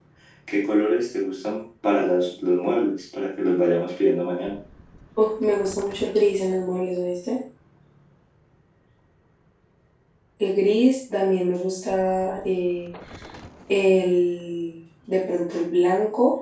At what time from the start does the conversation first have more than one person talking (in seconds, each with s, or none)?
none